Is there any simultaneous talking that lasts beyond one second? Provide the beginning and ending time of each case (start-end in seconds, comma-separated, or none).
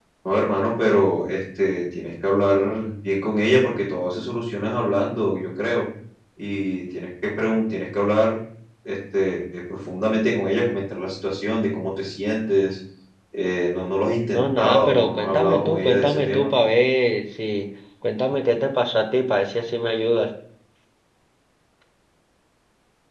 14.3-16.5